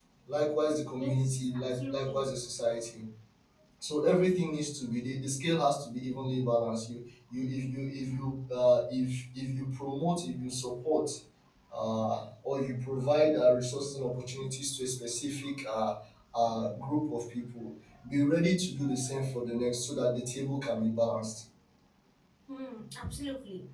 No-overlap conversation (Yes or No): No